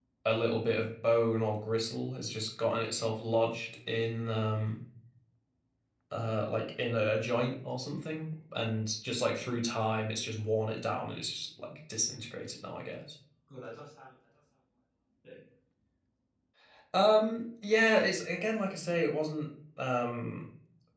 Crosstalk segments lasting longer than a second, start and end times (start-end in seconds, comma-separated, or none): none